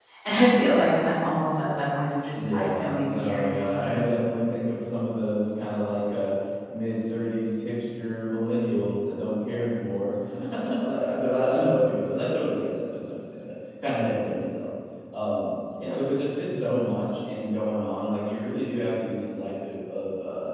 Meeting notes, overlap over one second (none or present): present